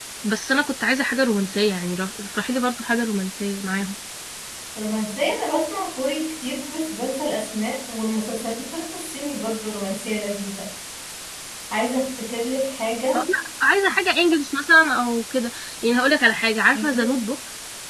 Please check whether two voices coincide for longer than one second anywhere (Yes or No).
No